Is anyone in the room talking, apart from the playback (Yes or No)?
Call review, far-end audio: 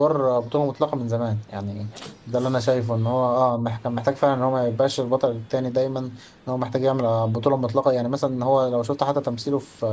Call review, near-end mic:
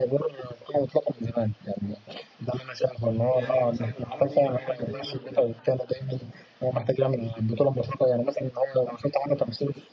Yes